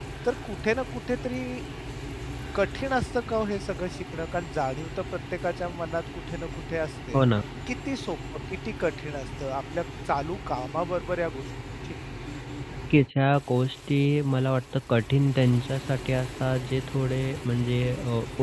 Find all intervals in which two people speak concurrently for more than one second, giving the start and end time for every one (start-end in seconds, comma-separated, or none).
none